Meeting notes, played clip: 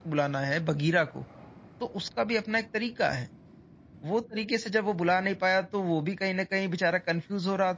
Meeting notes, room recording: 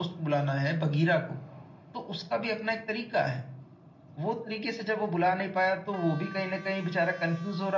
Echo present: Yes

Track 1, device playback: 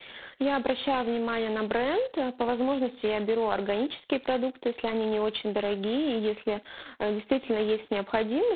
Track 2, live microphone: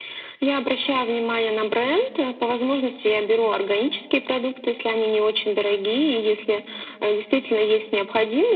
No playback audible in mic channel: No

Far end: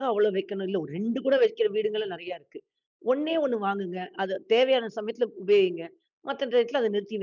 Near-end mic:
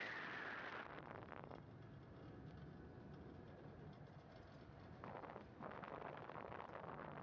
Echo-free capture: Yes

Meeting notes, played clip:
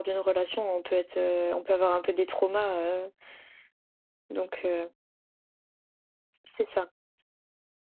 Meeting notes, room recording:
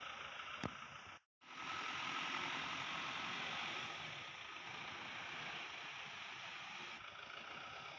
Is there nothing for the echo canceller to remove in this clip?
Yes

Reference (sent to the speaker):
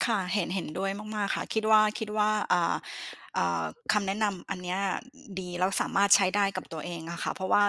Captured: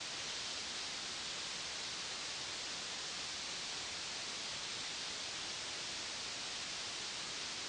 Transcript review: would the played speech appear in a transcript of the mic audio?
No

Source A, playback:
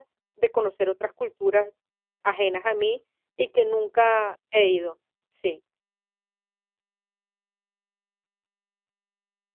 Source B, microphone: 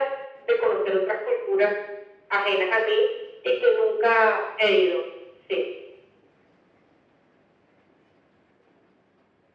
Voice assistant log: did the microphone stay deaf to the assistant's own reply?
No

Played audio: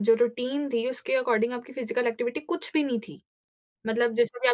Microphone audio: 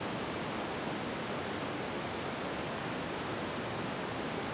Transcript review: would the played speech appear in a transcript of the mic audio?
No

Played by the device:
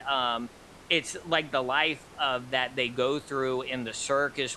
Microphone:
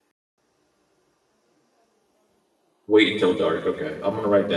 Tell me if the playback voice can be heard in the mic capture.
No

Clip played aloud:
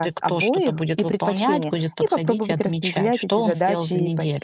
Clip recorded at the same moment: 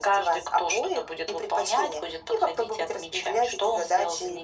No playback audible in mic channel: No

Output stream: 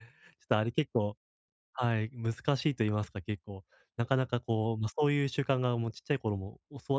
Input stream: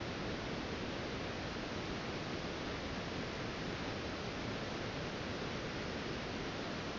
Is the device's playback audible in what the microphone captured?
No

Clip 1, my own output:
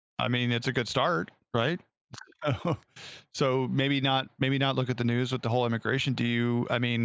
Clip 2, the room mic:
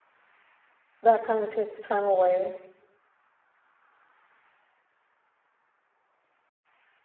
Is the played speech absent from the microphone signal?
Yes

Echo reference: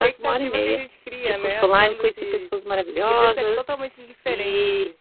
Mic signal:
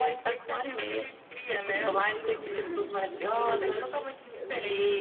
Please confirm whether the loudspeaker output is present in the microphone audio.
Yes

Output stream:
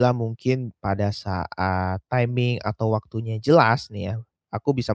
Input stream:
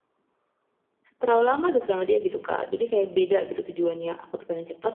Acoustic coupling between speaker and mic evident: No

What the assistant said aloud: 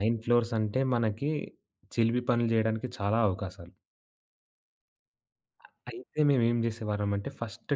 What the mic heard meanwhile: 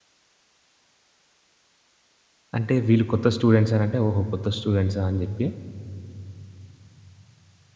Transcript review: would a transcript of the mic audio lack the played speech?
Yes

